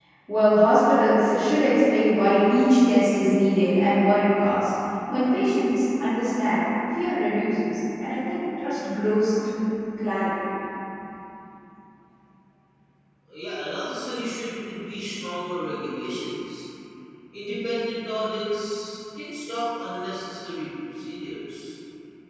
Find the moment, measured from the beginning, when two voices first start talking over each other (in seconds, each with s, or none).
none